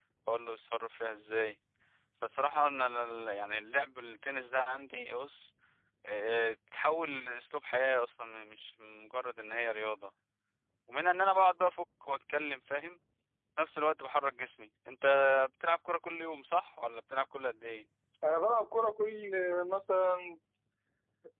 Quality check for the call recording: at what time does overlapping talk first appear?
none

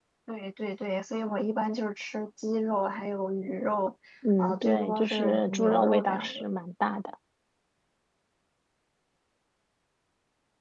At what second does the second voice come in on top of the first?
4 s

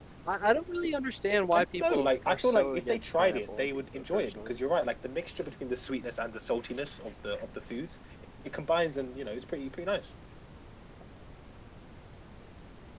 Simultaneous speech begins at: 2 s

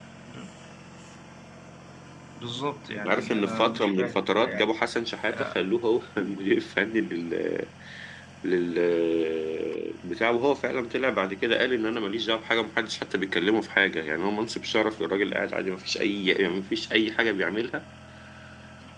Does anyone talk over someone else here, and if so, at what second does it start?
3 s

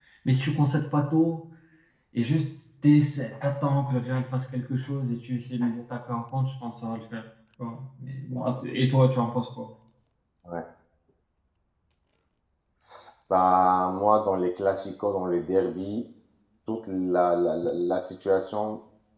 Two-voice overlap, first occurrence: none

